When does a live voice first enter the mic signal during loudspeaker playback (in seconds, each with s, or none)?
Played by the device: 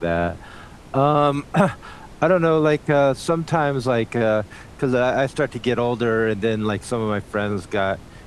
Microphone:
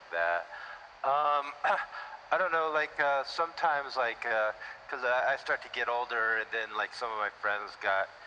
none